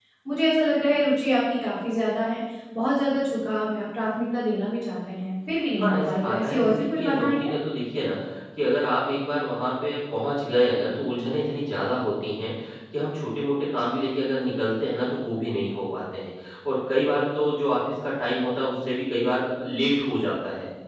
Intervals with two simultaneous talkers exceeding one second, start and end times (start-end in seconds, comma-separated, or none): 5.8-7.5